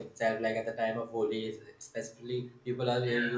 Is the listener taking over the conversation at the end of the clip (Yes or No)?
No